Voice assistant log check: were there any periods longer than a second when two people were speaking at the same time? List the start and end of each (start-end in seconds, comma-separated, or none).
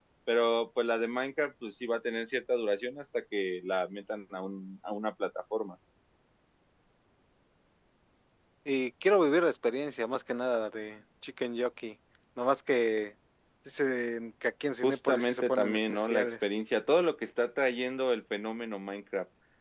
14.8-16.3